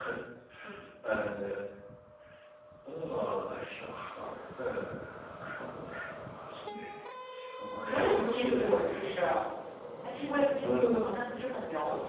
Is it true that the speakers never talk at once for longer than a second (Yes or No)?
No